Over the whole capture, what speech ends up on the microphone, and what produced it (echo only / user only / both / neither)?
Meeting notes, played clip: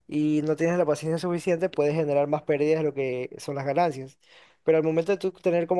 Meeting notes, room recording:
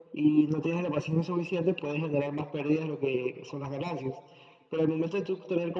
echo only